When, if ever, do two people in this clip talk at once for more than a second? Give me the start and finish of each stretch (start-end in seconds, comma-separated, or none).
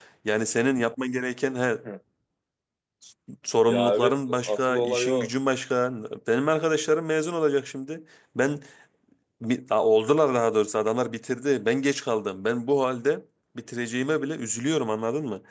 3.7-5.3